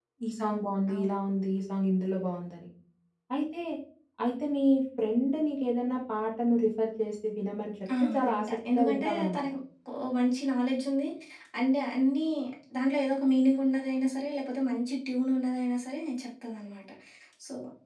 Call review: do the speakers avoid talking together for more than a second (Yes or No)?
No